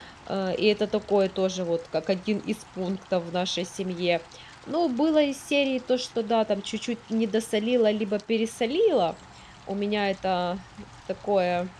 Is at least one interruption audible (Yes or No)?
No